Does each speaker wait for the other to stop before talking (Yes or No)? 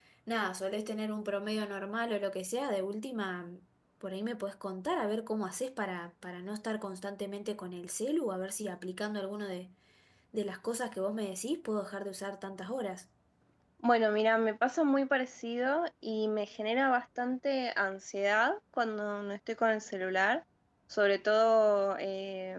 Yes